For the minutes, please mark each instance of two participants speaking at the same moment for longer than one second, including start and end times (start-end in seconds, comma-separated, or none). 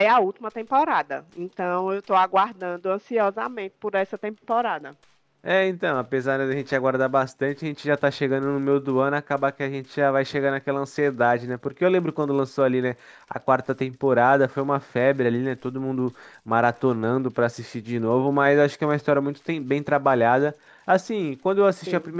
none